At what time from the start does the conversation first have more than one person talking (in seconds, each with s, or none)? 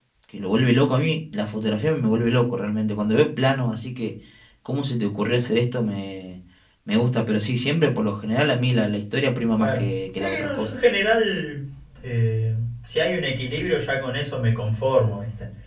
9.5 s